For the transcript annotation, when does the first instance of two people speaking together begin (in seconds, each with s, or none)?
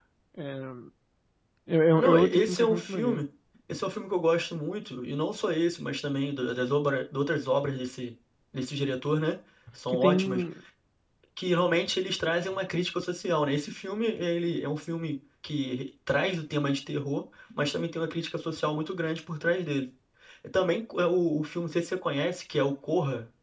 2.0 s